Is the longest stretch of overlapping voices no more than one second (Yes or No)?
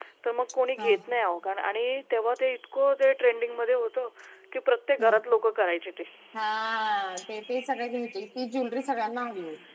Yes